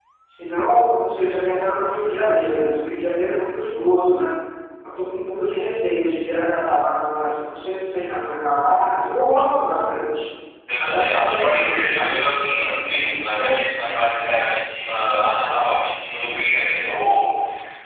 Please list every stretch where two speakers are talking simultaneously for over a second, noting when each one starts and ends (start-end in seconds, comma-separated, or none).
10.8-12.2